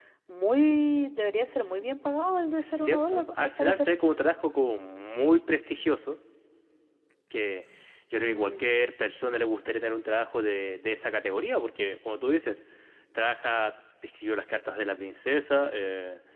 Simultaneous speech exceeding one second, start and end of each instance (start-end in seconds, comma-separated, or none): 2.6-3.9